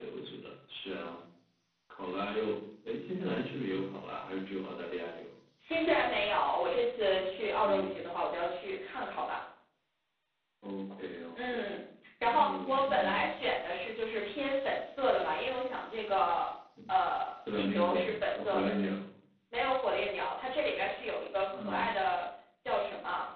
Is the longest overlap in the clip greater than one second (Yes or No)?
Yes